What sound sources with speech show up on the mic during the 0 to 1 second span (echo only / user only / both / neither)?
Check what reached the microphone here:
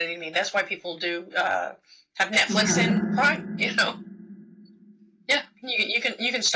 echo only